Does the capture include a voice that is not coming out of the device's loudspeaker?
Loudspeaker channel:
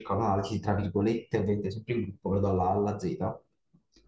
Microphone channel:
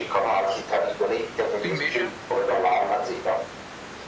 Yes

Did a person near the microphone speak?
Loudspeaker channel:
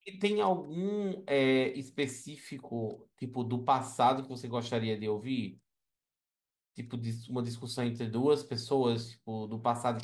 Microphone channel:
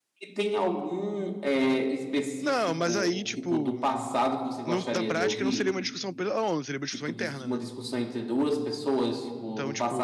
Yes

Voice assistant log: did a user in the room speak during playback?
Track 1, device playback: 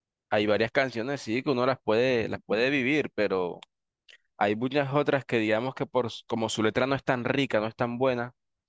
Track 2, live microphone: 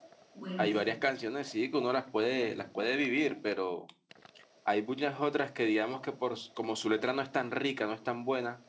Yes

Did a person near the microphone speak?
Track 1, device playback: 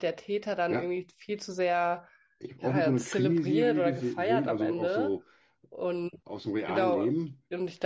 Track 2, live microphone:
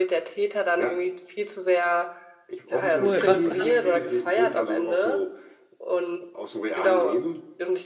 Yes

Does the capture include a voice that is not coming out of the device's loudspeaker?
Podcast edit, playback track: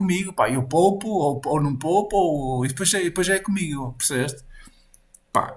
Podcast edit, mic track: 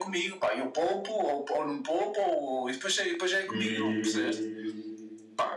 Yes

